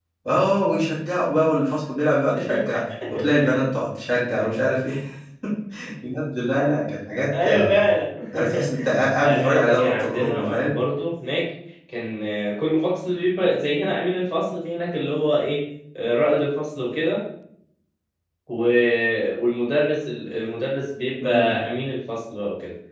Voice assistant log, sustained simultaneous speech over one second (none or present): present